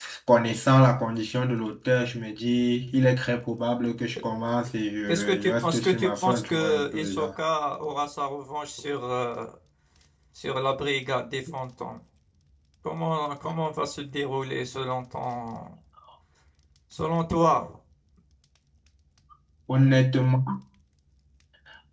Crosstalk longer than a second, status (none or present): present